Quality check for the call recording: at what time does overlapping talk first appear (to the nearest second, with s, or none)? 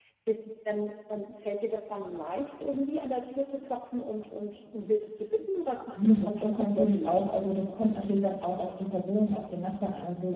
6 s